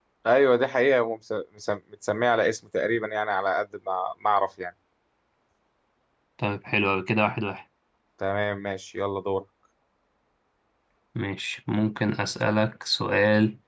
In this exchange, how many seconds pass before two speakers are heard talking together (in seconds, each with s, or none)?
none